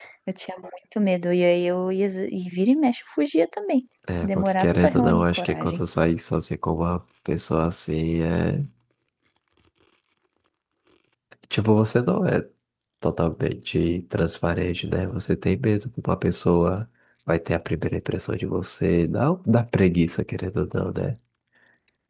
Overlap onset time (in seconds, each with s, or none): 4.1 s